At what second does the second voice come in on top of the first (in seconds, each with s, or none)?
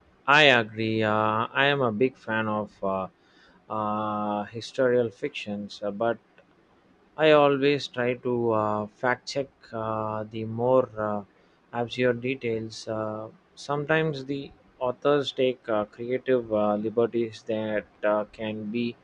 none